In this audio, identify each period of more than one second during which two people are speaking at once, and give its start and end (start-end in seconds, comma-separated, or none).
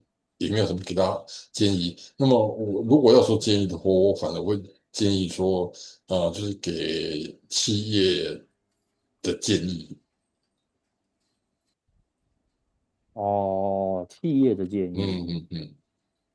none